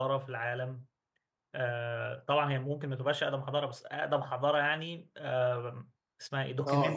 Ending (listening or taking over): taking over